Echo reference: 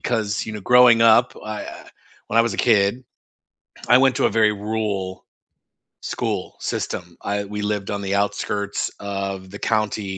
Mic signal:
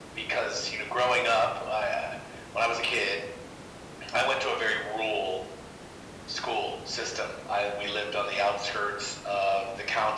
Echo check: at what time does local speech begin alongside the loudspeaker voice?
none

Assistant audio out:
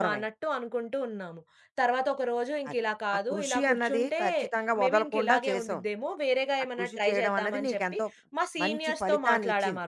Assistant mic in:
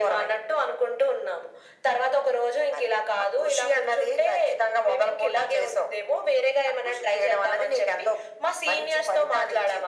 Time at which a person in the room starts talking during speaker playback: none

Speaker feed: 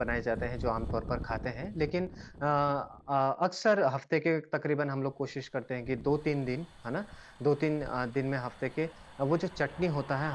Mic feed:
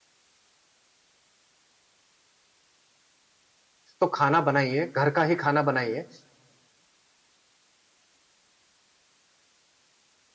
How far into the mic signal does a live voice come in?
4.0 s

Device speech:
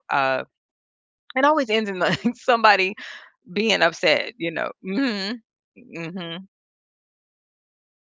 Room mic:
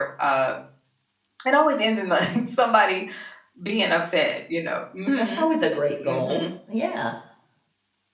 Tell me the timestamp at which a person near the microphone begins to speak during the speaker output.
5.2 s

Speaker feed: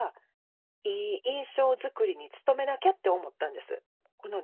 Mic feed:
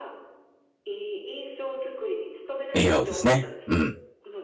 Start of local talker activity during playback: 2.7 s

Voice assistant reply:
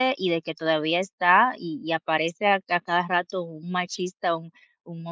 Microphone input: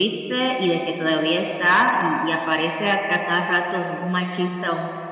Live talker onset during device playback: none

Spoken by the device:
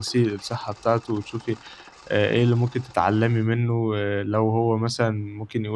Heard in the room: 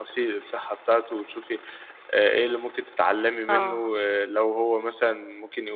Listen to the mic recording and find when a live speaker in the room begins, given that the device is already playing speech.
3.5 s

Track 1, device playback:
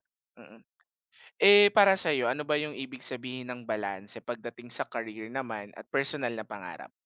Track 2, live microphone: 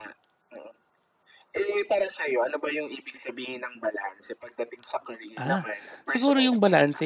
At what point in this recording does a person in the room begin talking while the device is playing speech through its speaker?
5.4 s

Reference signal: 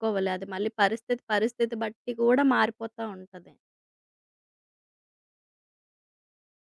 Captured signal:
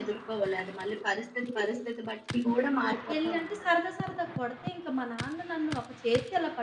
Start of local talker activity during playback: 3.2 s

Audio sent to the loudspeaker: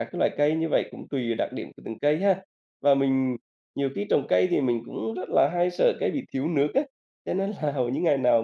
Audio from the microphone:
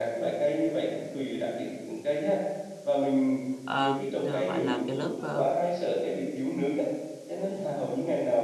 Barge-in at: 3.6 s

